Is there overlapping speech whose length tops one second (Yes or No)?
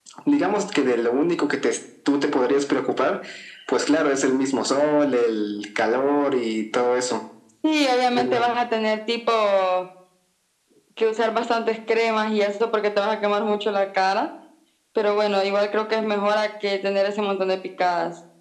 No